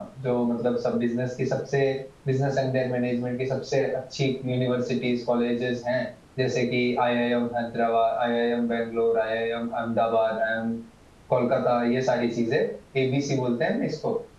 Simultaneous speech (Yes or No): No